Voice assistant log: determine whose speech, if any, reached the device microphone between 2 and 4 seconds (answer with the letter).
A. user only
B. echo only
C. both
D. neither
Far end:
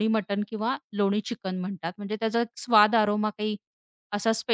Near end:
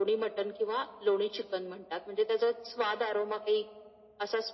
B